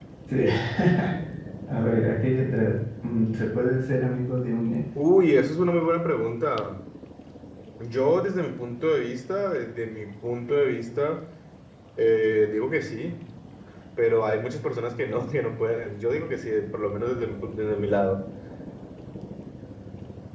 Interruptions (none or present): none